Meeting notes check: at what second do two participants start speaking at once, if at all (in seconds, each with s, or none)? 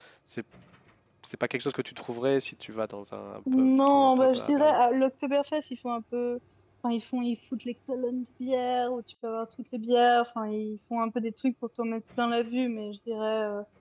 3.5 s